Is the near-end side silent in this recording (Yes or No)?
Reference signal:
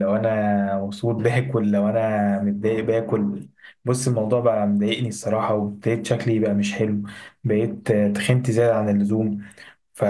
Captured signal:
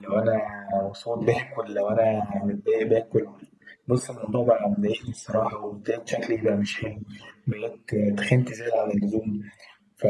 Yes